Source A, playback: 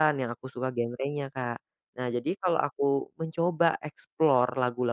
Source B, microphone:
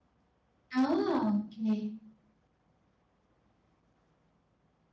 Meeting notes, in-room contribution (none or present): present